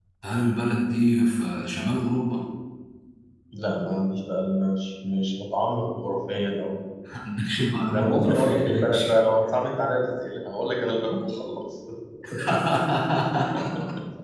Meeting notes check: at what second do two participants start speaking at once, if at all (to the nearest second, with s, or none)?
8 s